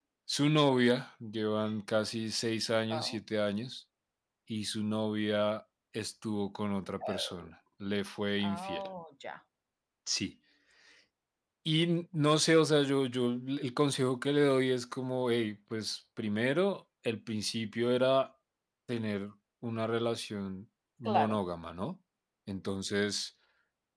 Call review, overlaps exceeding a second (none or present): none